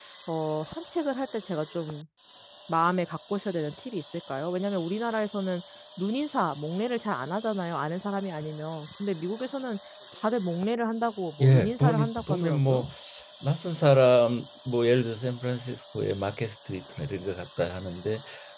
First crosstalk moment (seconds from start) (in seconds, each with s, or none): 11.4 s